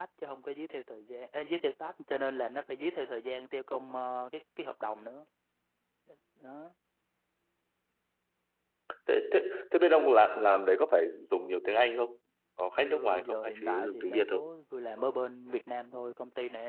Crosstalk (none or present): present